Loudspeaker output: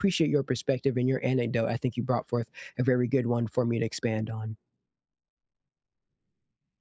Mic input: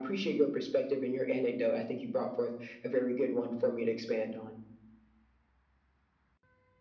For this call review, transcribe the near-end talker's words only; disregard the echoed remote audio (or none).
none